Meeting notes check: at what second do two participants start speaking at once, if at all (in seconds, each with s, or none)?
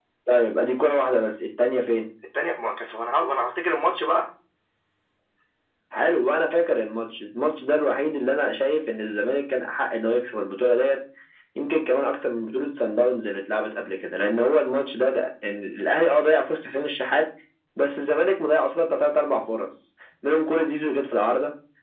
none